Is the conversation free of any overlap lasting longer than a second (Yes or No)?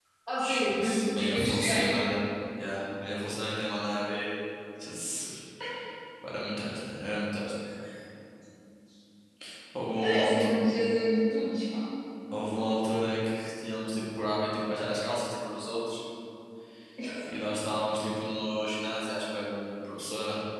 No